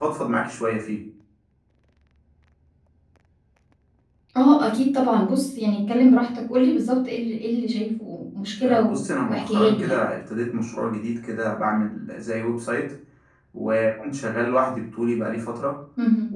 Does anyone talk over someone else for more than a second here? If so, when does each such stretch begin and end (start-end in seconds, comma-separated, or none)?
8.6-10.0